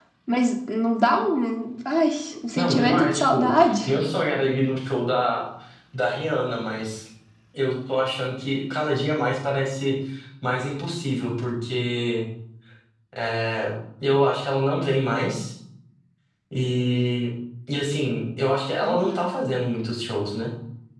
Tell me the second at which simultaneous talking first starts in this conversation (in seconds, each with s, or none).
2.6 s